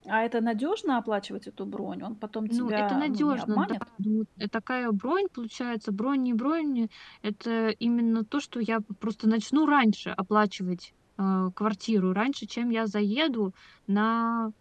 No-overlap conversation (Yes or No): No